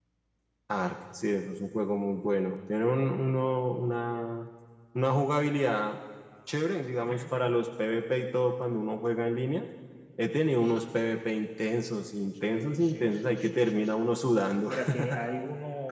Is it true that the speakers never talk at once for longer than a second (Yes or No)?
No